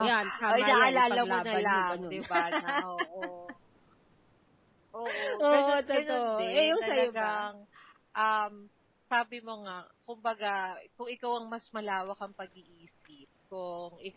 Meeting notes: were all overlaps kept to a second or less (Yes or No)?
No